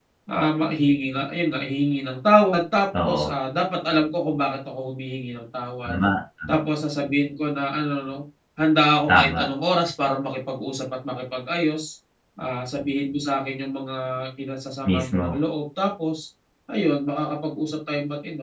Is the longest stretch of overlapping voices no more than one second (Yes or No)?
Yes